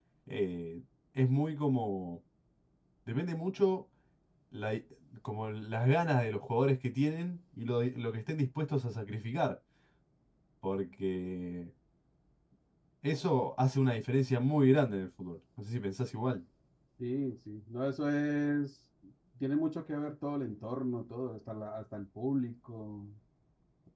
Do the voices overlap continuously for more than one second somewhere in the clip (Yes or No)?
No